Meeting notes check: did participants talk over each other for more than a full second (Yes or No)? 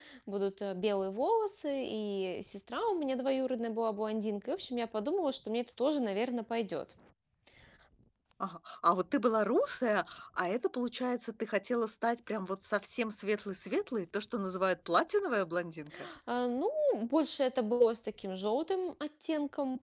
No